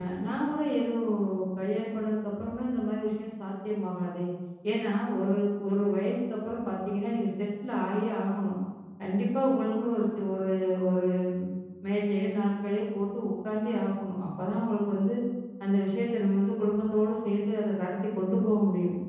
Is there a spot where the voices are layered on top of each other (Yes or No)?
No